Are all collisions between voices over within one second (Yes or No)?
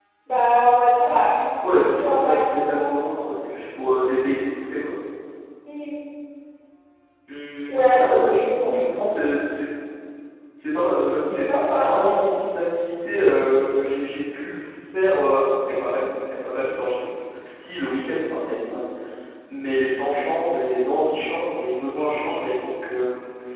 No